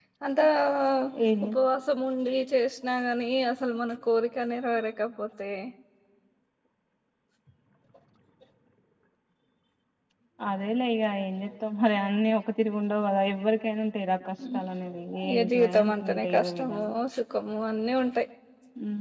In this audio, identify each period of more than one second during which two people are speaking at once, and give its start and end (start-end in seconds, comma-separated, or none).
15.4-16.9